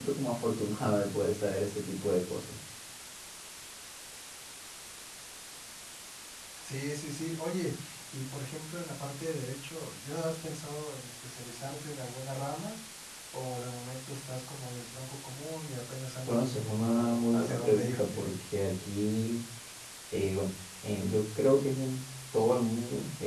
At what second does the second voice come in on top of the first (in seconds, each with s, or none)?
16.3 s